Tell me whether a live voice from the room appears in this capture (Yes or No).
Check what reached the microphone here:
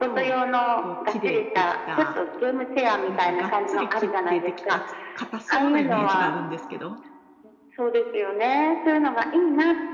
Yes